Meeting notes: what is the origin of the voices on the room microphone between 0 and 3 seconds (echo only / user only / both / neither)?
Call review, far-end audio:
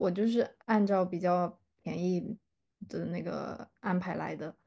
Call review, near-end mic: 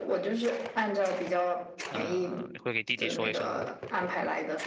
both